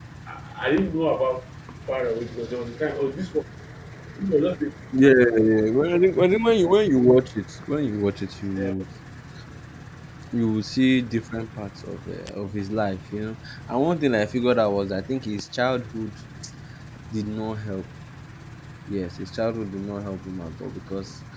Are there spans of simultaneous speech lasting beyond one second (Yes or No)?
No